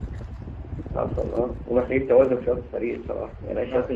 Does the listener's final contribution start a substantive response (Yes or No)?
No